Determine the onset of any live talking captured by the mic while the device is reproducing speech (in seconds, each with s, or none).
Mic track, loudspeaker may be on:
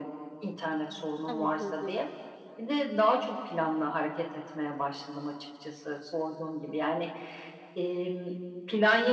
1.3 s